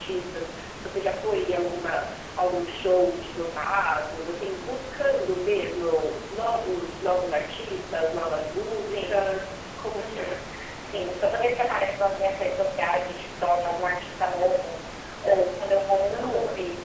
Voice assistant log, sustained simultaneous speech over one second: none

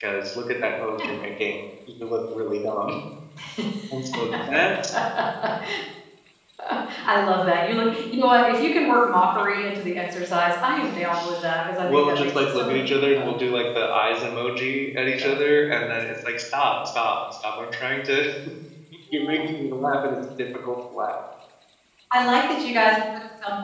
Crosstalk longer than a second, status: present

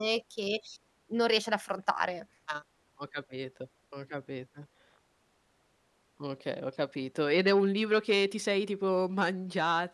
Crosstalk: none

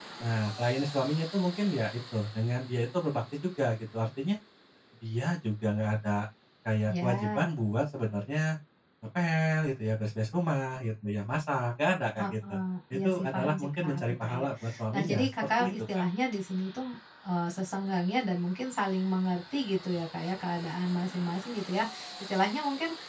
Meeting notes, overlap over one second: present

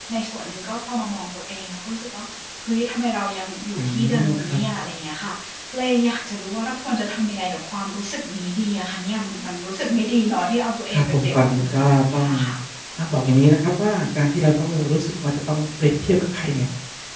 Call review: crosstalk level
present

